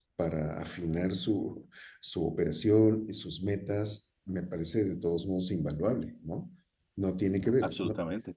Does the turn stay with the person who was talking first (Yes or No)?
No